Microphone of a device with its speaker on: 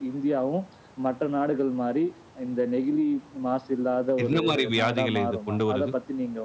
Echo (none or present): present